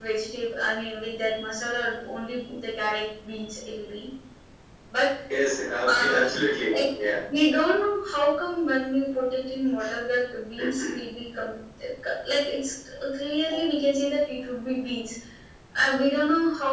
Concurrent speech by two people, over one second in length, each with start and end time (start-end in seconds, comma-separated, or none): none